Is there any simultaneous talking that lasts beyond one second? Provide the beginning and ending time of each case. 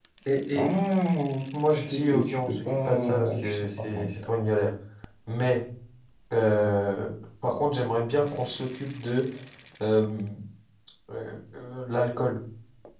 1.8-4.1

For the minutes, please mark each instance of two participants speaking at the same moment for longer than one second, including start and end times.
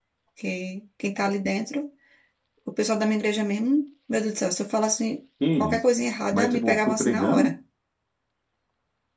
6.3-7.5

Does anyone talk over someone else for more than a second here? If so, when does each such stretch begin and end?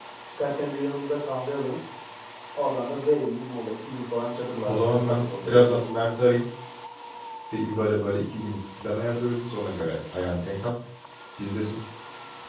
4.7-5.9

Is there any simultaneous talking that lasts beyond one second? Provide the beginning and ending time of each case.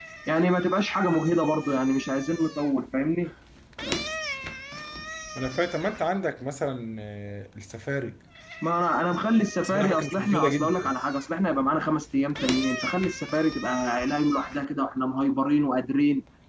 9.6-10.9

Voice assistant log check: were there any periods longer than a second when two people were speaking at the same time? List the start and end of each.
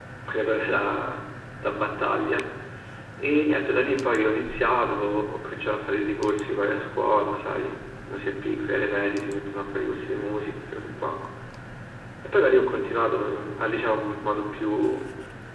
none

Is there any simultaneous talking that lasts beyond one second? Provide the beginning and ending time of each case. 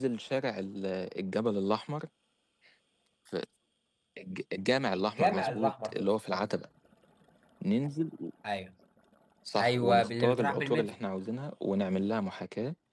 4.9-6.5, 9.6-11.0

